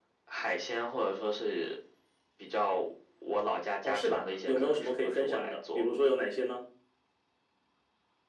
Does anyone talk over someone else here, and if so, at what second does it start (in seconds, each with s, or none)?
3.8 s